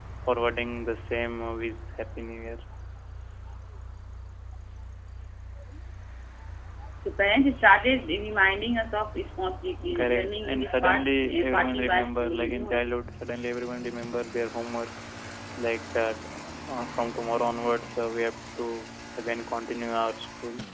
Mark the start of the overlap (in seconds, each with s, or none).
9.8 s